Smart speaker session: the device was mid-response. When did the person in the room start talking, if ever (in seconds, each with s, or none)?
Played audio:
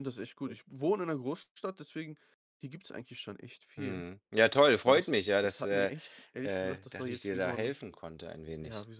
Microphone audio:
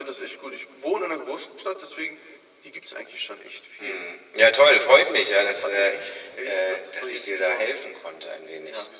none